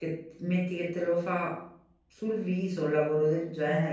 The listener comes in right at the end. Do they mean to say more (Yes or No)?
Yes